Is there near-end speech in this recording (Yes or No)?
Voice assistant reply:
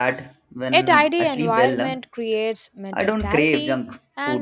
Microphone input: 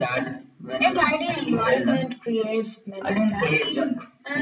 No